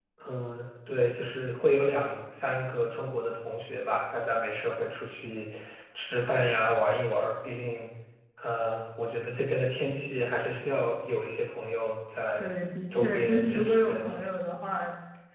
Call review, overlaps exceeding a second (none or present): present